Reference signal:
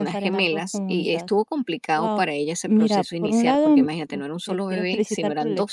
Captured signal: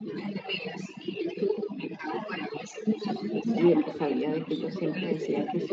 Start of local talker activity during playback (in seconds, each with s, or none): 3.5 s